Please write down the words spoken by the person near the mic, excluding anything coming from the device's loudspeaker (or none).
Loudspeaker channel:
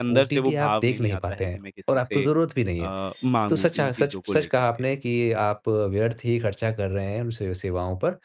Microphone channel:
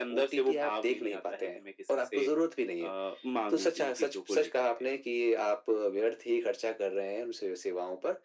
none